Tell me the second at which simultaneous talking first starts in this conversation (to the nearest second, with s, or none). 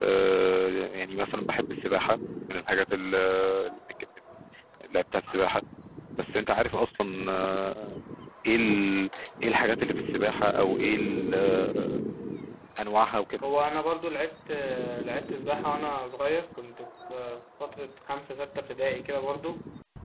none